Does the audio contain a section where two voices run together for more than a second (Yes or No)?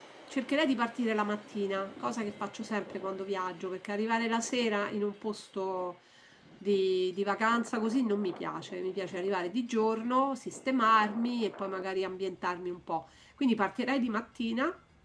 No